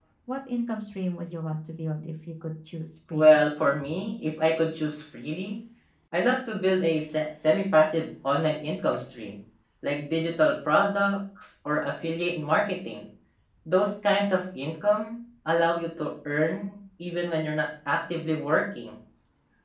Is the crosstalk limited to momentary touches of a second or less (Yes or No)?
Yes